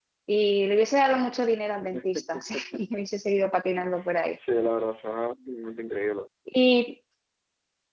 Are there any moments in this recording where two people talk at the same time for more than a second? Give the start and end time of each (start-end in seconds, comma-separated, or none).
none